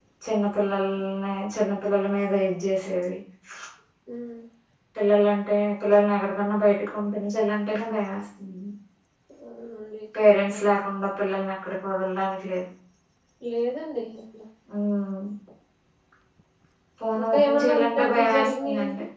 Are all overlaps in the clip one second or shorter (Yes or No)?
No